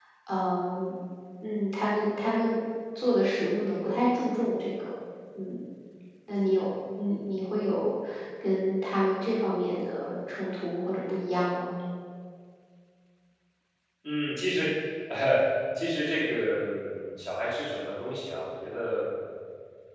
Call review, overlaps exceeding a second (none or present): none